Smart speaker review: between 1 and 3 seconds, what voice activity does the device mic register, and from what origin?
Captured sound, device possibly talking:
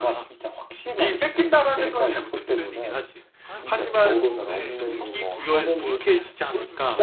echo only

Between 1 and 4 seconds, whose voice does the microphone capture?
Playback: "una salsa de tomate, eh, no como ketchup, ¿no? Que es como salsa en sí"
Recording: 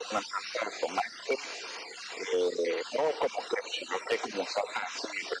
echo only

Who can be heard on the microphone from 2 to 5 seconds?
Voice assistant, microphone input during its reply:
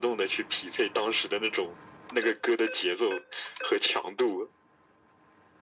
echo only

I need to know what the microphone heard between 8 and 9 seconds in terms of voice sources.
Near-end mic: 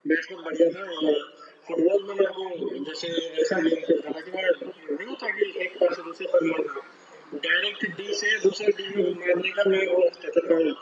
echo only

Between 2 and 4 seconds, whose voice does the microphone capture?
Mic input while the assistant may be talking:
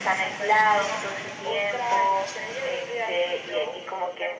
echo only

